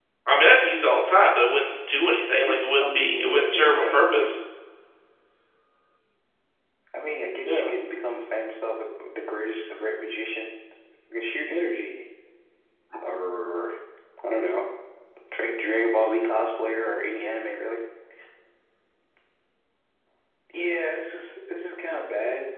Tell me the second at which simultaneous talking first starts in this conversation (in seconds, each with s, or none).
2.3 s